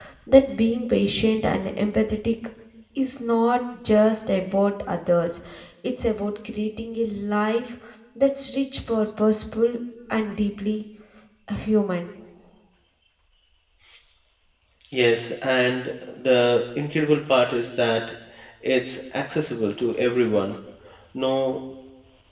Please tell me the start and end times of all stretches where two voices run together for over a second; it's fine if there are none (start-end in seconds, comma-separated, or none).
none